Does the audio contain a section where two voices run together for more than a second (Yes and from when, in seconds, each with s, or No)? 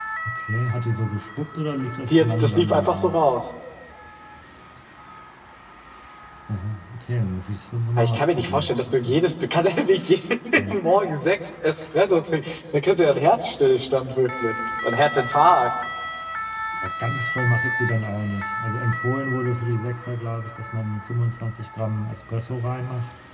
Yes, from 2.0 s